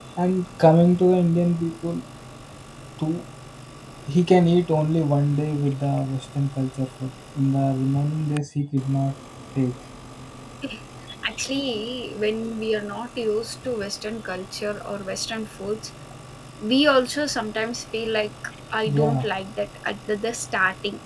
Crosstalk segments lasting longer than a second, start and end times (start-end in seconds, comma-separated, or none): none